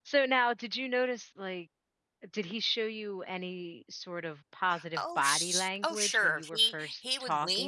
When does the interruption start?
4.7 s

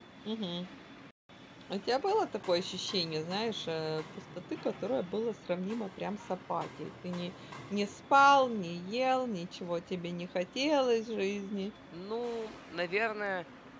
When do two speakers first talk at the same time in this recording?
none

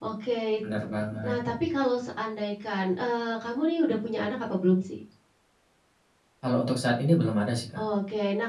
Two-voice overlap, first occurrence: none

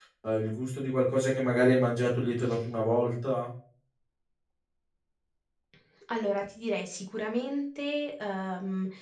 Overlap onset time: none

